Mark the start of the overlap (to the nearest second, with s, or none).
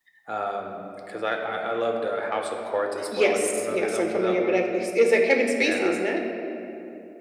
3 s